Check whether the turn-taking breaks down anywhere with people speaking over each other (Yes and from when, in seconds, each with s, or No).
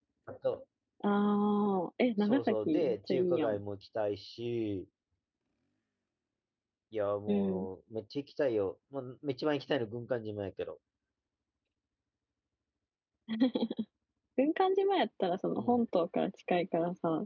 Yes, from 2.2 s